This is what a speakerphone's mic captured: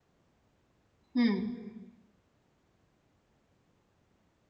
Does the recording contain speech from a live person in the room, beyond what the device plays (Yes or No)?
Yes